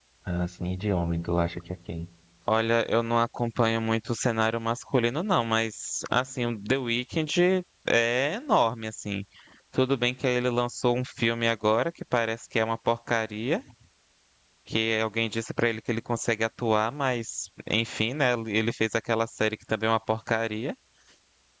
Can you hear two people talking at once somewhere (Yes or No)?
No